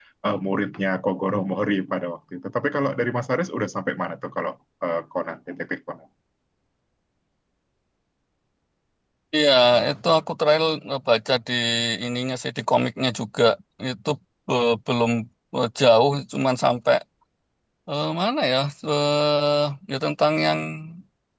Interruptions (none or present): none